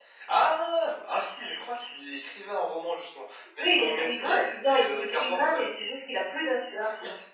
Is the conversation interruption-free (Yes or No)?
No